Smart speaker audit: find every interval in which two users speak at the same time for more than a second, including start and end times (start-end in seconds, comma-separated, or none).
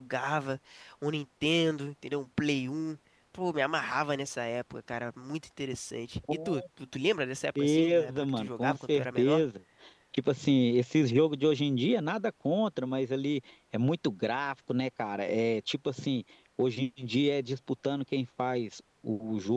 7.6-9.4